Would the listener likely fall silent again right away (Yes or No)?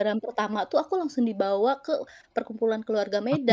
No